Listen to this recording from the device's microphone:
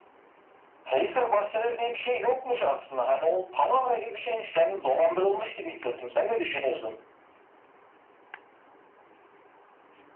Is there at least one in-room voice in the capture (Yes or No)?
No